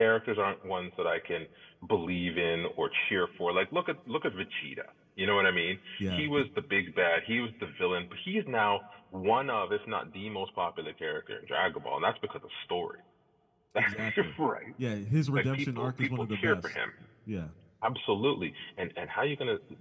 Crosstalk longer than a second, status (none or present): present